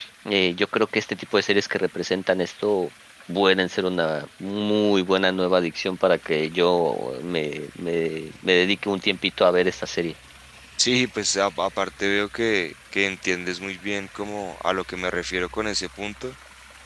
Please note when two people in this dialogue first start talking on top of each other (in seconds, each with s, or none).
none